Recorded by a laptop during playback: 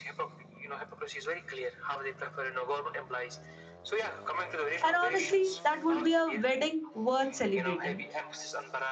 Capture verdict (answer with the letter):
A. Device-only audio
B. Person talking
B